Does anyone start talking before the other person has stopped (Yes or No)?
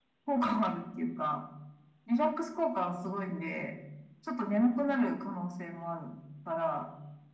No